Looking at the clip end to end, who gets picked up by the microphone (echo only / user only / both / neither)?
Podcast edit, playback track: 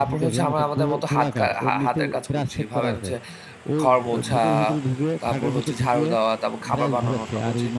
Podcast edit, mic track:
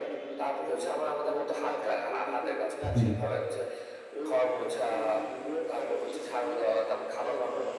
both